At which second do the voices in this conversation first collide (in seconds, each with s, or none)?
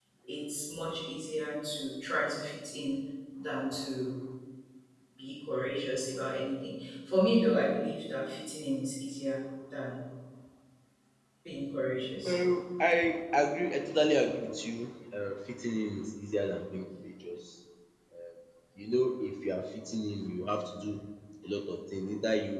none